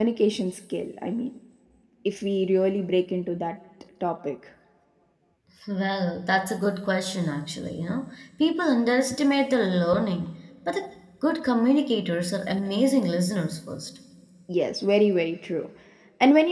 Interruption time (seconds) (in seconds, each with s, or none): none